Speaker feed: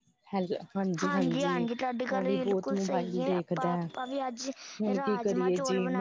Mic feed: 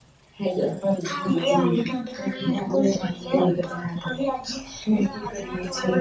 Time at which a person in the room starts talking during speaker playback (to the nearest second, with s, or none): none